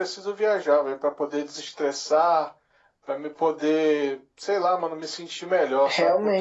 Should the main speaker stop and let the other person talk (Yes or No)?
Yes